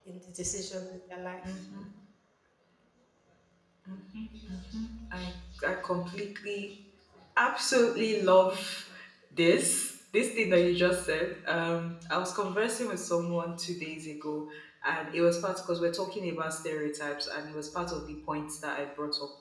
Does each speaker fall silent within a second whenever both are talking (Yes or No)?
Yes